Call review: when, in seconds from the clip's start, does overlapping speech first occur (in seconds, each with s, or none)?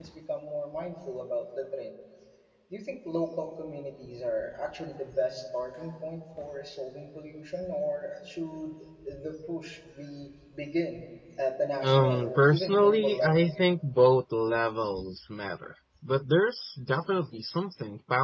11.8 s